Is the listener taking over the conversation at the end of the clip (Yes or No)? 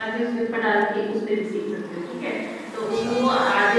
No